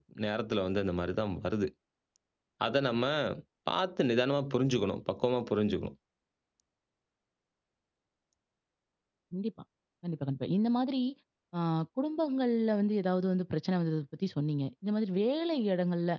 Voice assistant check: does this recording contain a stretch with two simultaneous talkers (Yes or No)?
No